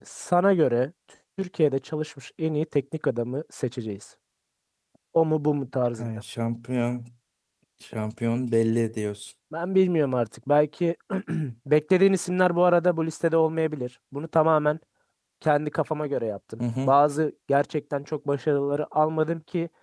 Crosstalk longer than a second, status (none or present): none